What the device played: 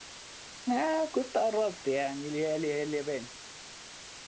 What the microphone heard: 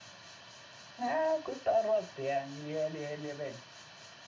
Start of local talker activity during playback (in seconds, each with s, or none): none